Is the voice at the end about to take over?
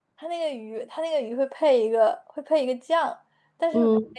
No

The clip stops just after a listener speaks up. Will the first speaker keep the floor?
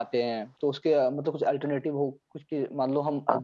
Yes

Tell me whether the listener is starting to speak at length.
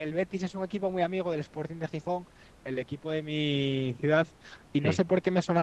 No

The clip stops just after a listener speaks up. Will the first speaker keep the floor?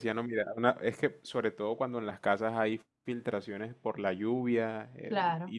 Yes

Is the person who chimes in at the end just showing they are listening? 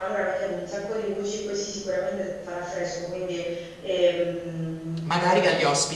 No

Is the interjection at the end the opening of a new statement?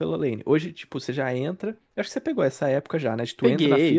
No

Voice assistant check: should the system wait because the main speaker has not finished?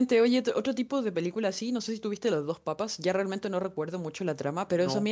Yes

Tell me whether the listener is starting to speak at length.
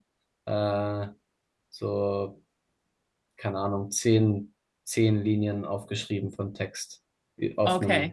Yes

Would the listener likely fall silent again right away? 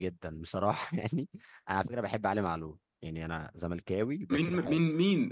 No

